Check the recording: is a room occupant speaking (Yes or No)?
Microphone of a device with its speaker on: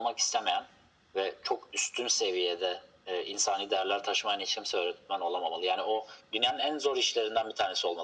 No